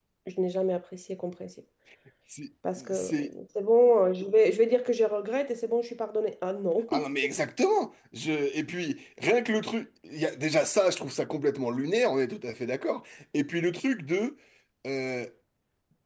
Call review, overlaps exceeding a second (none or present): none